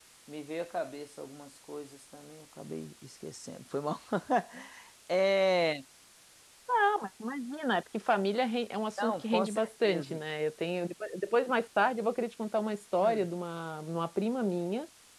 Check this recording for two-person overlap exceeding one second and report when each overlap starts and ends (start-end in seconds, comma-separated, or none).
9.0-10.2